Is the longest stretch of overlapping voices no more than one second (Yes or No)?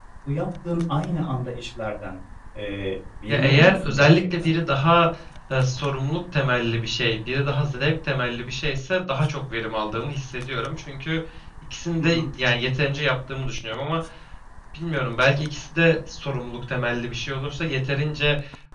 No